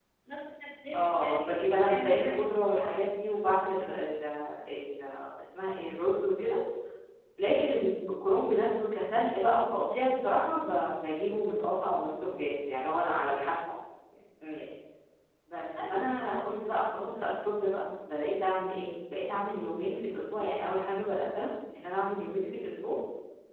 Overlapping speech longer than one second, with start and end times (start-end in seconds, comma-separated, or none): 1.0-3.0